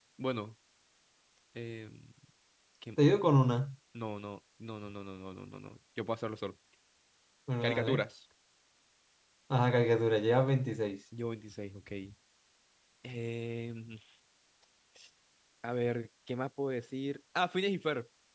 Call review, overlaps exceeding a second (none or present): none